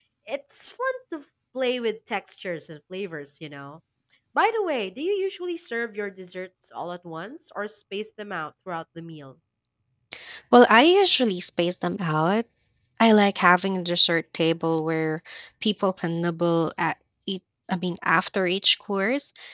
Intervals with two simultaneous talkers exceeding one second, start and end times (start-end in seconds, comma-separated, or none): none